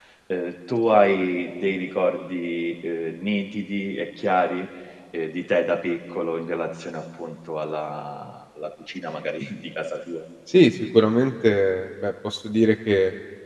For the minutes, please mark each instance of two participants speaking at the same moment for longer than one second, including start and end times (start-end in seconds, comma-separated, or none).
none